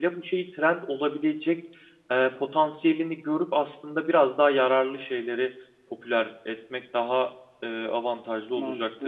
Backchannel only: No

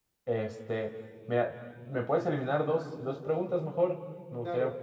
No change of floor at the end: No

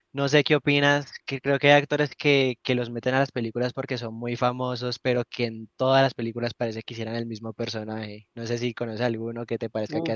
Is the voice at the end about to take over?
Yes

